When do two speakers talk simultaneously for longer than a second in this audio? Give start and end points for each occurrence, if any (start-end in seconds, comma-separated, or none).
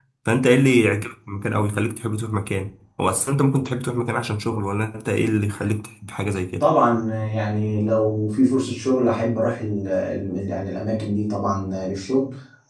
none